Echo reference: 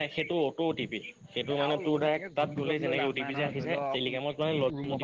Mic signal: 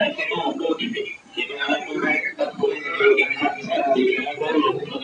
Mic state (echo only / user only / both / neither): echo only